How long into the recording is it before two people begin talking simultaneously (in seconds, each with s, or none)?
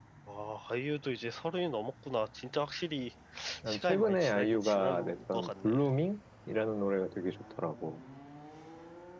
3.7 s